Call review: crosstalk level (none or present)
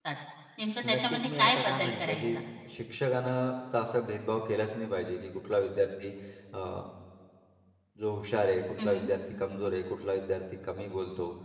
present